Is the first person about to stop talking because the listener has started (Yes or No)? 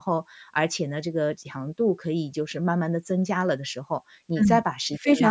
Yes